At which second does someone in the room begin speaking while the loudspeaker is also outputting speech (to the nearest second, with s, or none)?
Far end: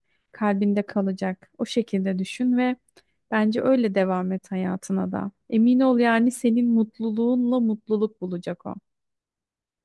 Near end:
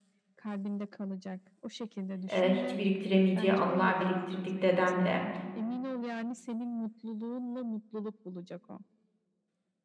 2 s